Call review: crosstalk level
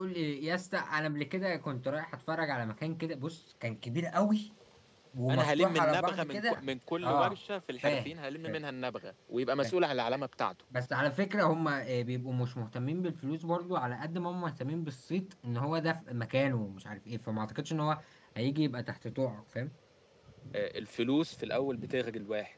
present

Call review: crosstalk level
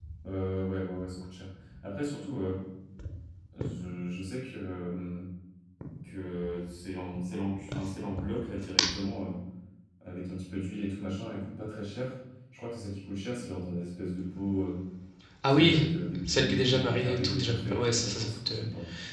present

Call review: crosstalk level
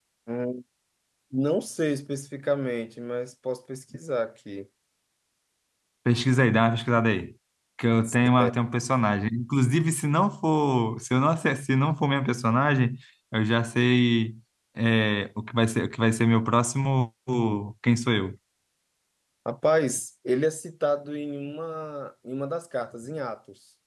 none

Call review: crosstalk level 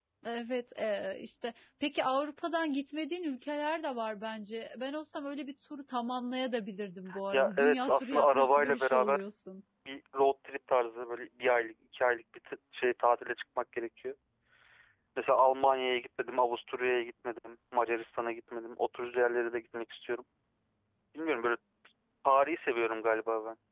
present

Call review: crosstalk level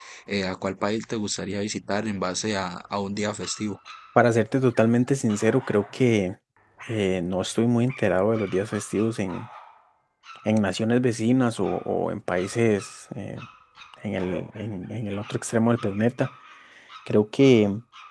none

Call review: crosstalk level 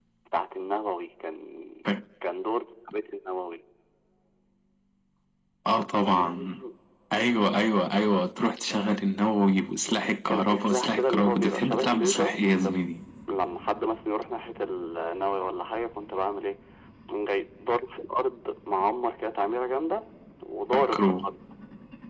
present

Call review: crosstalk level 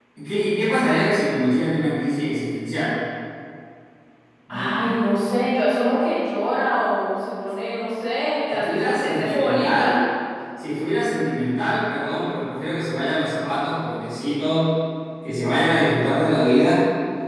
present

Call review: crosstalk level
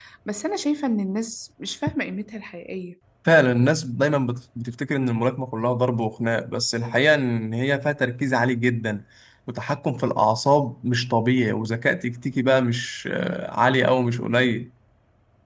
none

